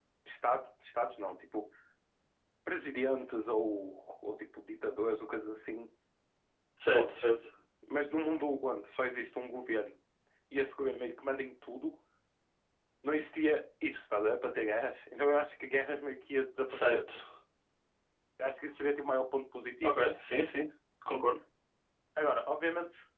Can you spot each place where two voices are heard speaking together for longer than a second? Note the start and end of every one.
none

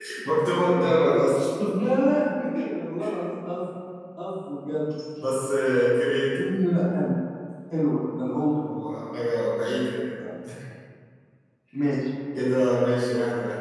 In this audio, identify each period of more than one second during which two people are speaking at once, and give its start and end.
none

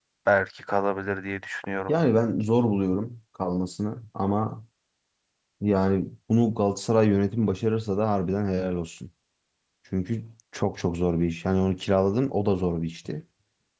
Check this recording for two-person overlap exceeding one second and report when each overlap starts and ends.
none

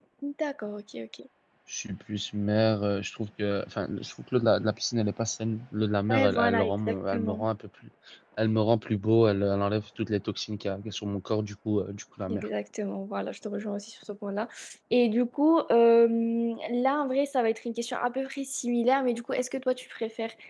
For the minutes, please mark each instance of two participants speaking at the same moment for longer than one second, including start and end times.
6.1-7.5

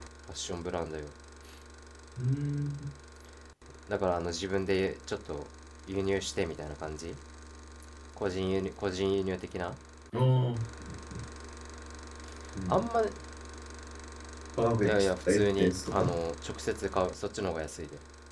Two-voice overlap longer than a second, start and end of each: 14.8-16.1

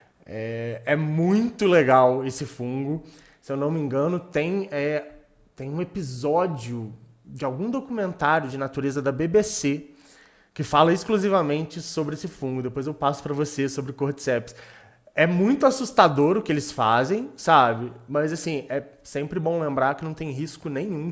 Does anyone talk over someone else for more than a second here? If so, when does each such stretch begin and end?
none

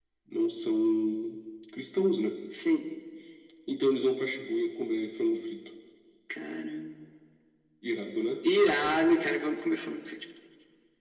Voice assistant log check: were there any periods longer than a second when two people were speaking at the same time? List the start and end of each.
none

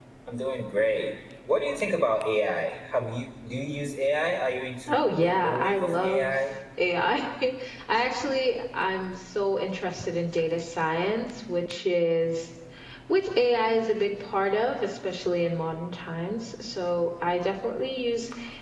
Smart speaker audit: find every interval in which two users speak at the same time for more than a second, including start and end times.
4.9-6.3

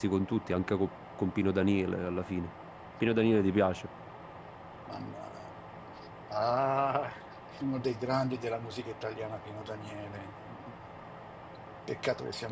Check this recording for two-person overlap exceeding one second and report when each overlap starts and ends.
none

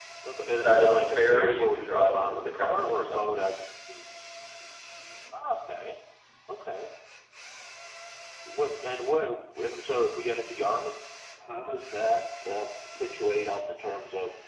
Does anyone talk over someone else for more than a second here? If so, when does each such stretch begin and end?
0.6-3.2

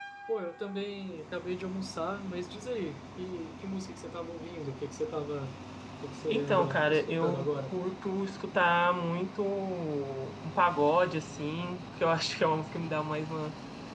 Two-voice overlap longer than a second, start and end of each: 6.3-7.7

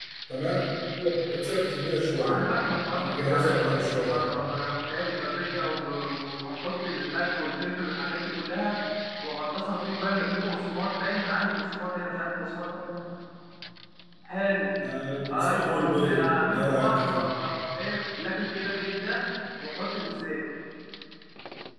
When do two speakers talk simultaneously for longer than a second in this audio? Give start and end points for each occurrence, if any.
3.0-4.3, 15.3-17.2

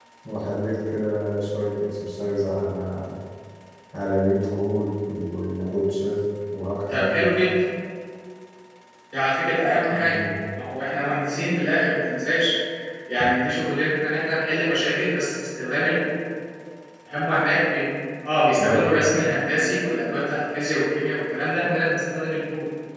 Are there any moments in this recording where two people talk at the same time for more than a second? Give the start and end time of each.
none

